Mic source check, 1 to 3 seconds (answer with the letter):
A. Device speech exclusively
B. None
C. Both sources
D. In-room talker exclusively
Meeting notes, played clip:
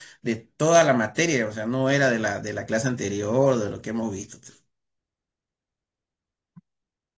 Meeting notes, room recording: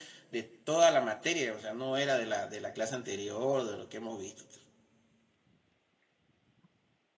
A